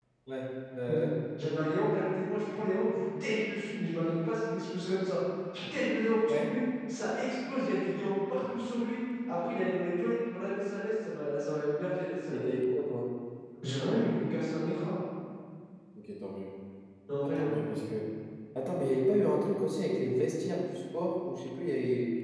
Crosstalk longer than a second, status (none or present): none